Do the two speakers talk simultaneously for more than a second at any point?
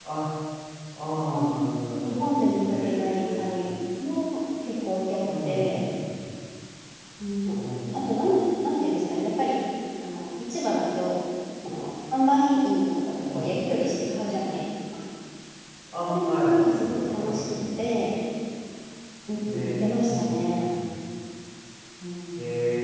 Yes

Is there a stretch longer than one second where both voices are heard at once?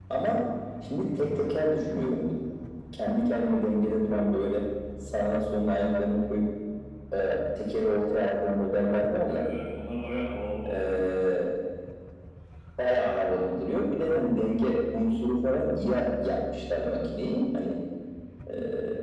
No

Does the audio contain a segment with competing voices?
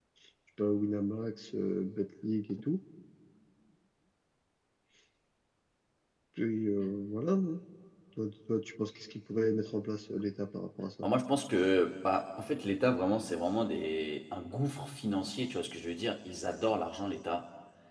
No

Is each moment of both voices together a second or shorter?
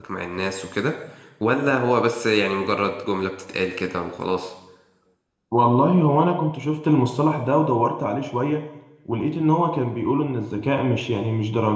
Yes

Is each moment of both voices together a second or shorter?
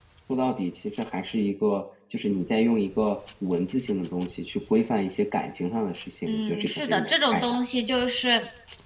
No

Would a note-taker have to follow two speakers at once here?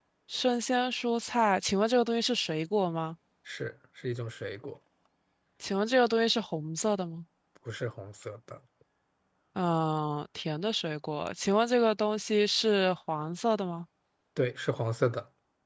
No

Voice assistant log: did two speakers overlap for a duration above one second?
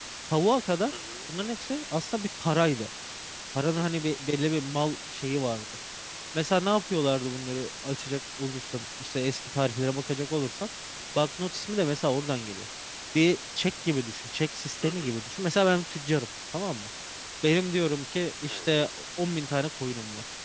No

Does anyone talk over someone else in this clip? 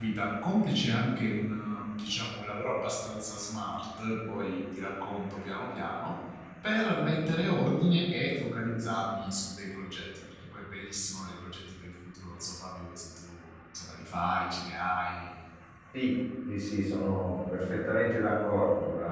No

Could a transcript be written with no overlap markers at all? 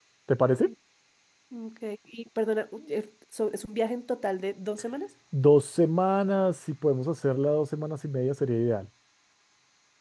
Yes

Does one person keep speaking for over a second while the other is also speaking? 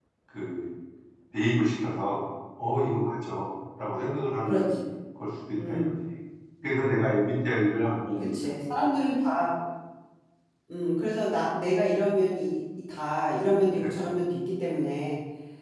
No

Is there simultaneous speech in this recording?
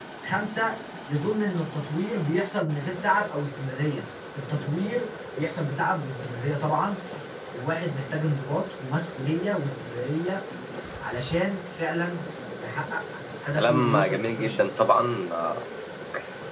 Yes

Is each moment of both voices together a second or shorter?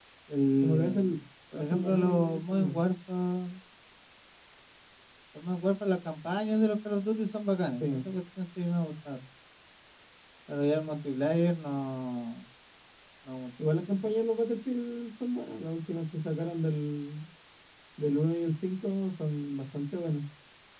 No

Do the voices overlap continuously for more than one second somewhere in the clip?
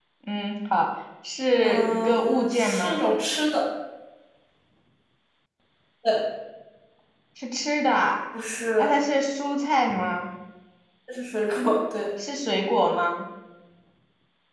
Yes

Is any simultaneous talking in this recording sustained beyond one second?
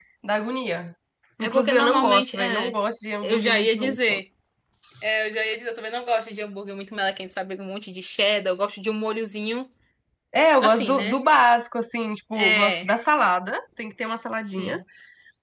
Yes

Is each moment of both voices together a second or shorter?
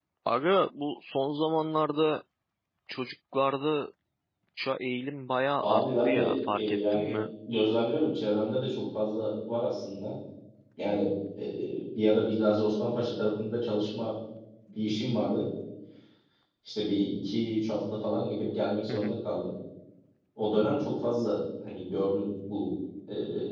No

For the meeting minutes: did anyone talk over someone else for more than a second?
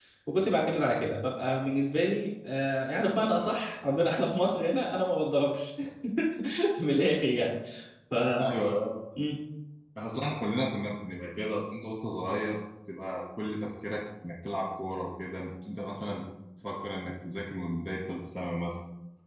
No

